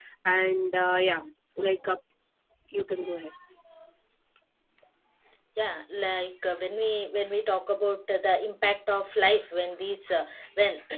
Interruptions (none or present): none